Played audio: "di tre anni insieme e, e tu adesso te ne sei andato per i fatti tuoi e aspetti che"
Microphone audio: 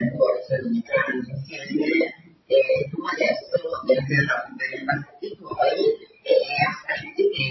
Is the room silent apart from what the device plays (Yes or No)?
Yes